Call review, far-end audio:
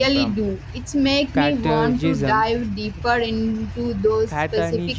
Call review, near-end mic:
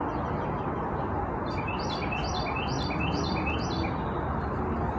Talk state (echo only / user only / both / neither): neither